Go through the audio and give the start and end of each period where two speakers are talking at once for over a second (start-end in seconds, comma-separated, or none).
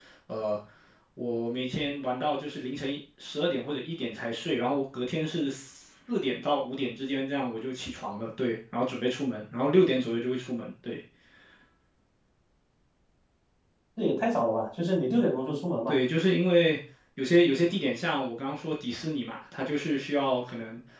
none